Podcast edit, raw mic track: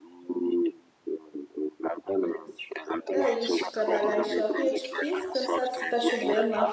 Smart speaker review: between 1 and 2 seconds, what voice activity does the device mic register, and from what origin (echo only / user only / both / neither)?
echo only